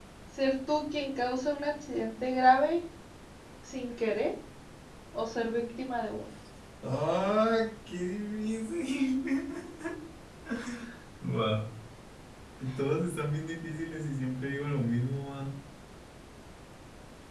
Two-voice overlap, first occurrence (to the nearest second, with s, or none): none